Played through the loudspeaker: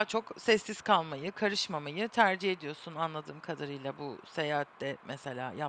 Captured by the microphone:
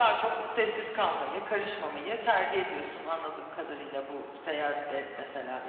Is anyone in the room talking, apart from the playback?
No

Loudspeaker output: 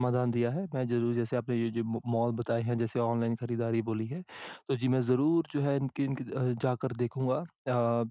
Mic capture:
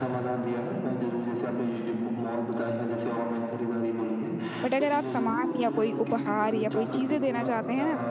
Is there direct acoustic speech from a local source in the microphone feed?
Yes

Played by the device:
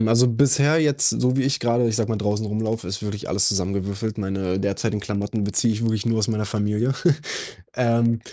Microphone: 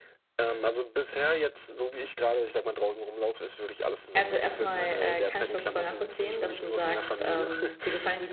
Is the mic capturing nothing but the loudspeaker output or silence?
No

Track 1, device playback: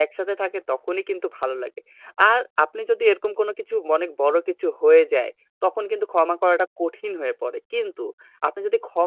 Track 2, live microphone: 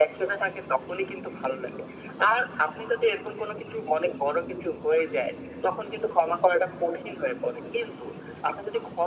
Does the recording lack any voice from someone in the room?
Yes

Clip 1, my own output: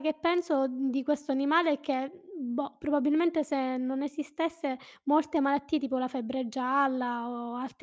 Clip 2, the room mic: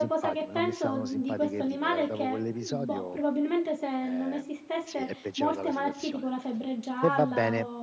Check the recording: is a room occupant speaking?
Yes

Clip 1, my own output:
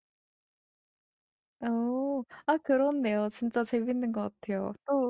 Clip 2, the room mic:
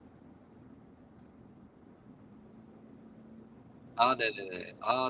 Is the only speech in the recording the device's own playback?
No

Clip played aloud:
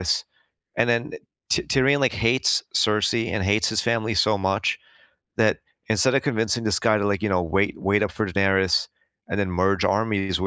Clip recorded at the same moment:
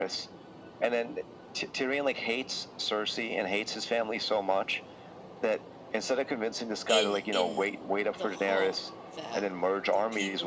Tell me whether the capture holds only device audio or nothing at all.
No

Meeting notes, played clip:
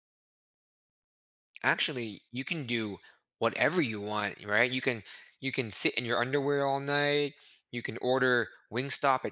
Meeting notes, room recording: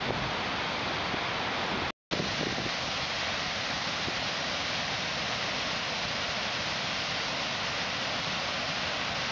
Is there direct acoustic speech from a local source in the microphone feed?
No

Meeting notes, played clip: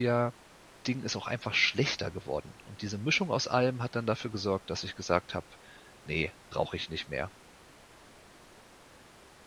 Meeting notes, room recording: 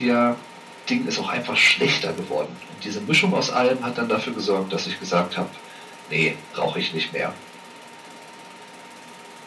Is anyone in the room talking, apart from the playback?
No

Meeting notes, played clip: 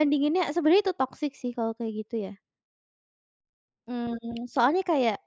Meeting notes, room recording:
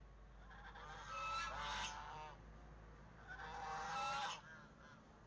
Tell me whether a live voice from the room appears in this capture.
No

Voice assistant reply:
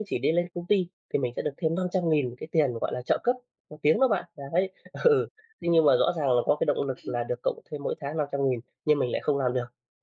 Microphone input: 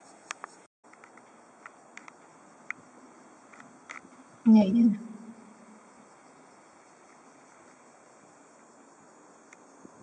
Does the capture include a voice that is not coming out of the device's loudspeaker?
Yes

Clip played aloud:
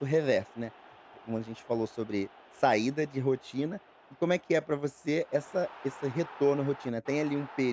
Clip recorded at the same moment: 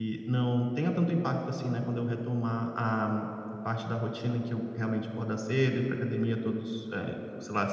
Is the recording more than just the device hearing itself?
Yes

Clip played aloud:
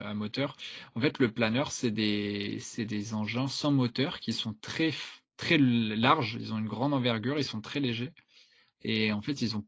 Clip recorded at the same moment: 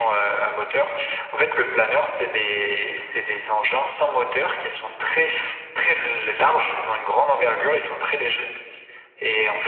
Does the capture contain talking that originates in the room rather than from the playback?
No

